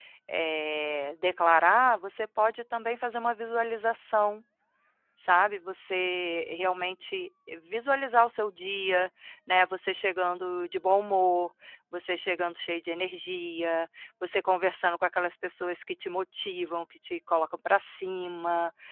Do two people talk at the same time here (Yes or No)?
No